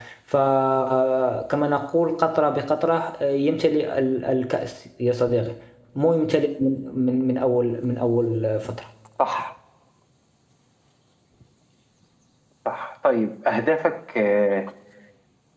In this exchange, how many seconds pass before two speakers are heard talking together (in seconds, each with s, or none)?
none